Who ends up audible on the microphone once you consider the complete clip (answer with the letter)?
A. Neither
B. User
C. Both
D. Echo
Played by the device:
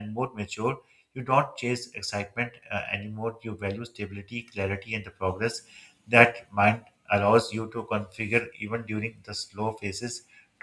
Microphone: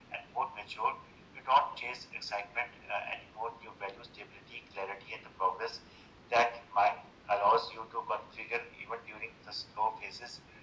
D